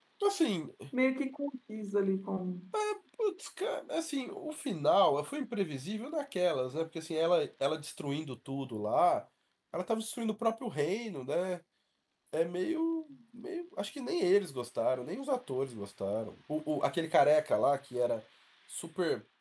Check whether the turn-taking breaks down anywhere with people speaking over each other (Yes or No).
No